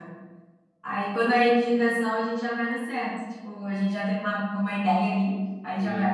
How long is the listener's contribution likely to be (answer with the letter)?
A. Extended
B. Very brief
A